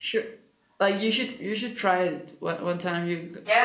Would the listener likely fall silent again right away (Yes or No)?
No